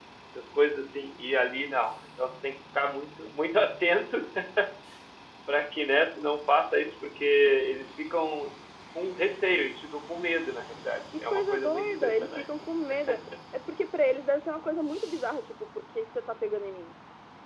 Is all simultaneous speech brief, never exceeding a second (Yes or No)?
No